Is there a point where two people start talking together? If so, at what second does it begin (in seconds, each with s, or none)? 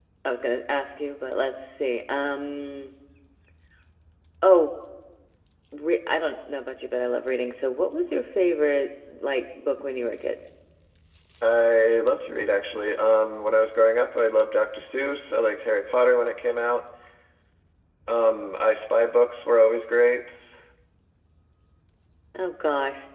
none